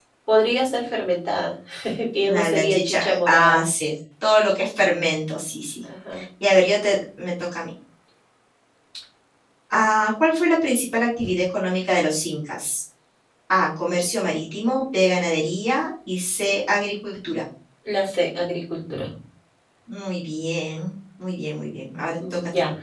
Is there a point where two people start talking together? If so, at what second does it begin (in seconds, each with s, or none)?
2.2 s